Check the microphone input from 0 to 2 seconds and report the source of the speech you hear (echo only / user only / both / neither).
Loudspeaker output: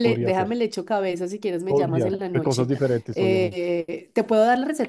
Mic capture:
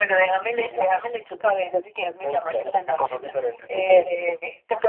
echo only